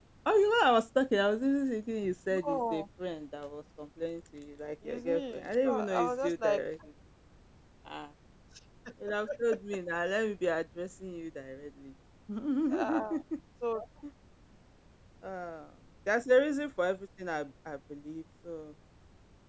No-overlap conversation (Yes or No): No